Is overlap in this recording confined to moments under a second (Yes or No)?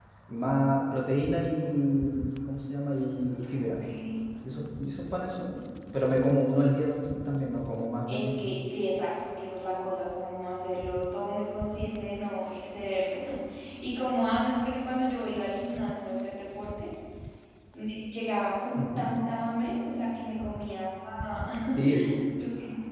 Yes